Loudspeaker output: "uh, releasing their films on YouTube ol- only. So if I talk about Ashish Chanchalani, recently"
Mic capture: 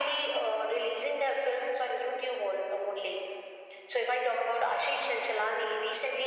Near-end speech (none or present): none